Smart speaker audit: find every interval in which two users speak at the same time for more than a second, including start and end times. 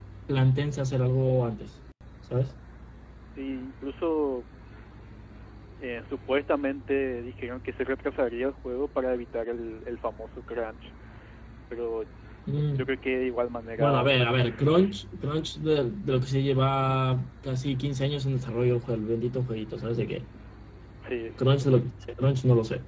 none

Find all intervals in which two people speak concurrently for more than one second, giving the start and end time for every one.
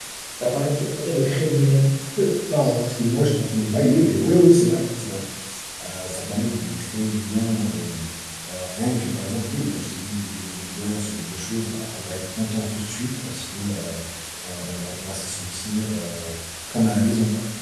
none

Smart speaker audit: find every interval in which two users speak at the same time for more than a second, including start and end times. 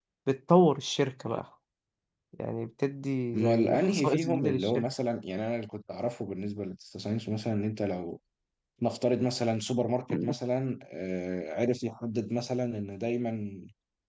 3.4-4.8

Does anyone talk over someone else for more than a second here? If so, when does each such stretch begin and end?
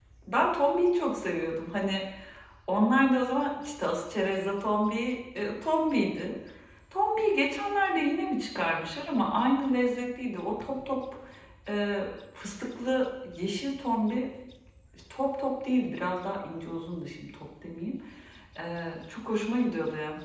none

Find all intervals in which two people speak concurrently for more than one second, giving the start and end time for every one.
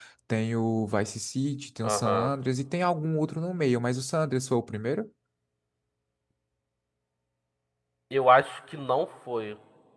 none

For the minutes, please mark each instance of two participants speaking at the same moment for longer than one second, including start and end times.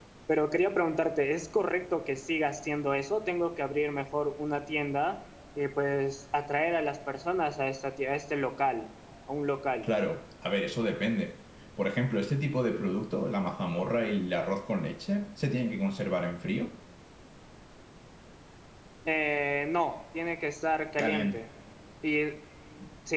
none

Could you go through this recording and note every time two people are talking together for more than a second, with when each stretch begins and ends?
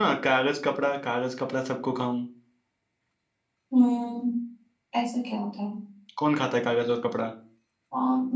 none

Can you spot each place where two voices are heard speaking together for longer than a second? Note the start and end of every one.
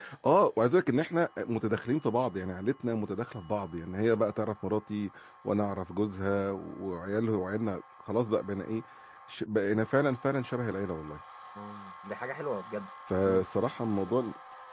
none

